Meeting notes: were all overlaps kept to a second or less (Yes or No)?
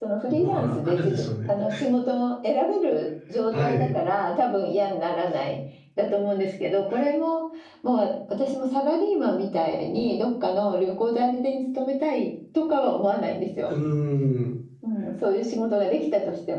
No